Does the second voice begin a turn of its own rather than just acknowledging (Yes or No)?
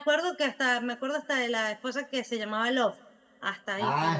Yes